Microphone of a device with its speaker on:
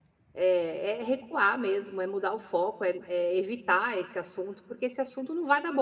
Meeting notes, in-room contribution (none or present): present